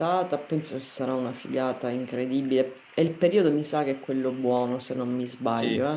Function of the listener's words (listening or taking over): taking over